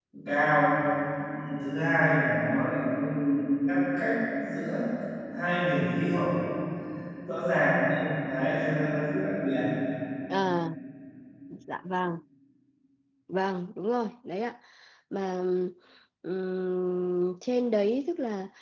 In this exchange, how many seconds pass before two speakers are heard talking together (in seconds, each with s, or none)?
none